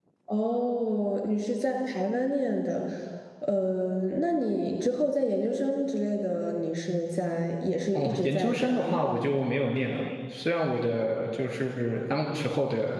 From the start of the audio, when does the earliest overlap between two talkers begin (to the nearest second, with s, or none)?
8 s